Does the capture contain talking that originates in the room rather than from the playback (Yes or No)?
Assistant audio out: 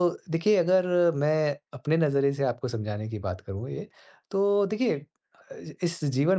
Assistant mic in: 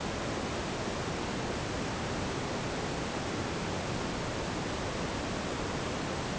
No